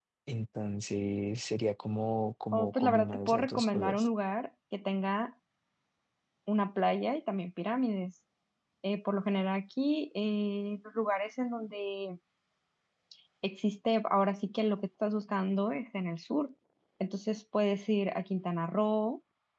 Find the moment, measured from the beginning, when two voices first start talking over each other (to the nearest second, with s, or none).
3 s